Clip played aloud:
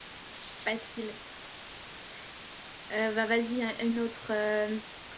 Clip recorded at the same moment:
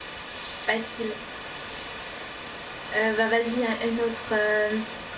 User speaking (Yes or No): No